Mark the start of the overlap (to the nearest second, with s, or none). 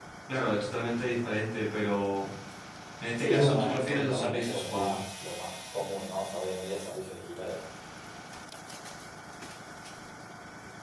3 s